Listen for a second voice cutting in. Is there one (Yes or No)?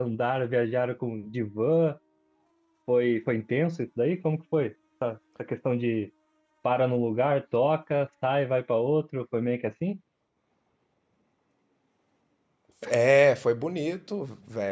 No